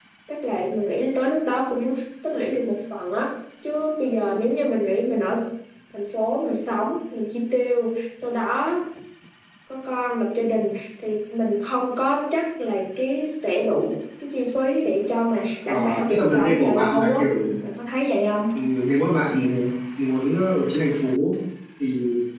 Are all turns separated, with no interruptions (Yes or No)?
No